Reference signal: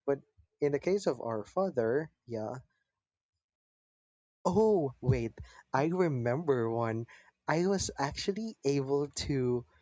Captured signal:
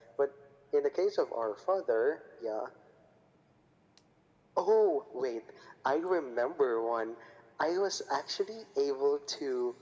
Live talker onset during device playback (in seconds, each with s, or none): none